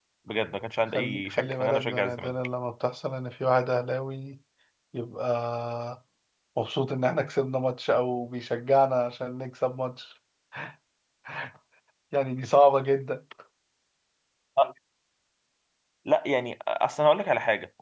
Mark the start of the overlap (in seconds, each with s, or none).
0.9 s